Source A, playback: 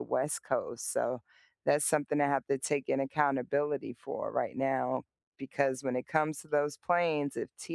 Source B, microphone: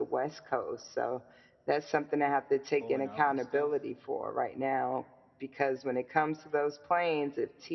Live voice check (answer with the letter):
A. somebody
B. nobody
A